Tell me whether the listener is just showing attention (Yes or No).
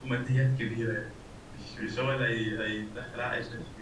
No